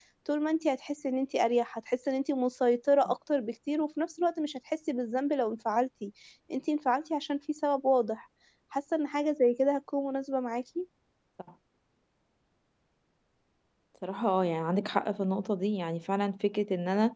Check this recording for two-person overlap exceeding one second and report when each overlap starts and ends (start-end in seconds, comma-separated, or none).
none